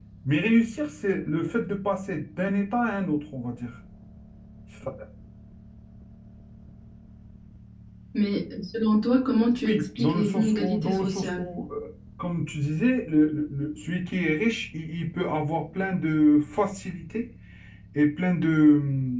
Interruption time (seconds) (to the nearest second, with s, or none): 10 s